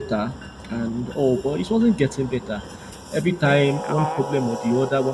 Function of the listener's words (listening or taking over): listening